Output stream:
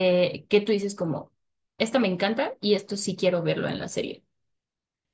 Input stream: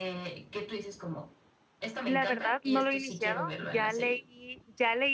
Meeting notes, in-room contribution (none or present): present